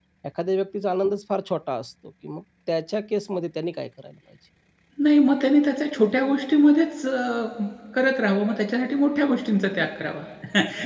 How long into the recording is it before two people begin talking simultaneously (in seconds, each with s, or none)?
none